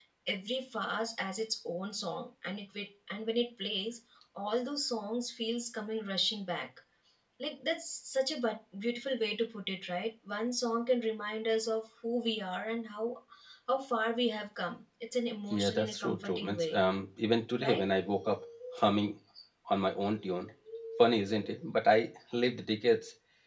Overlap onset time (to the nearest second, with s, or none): 16 s